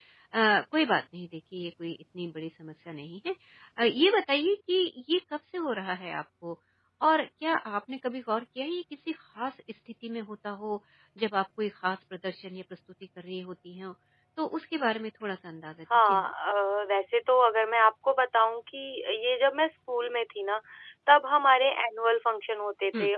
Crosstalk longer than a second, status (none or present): none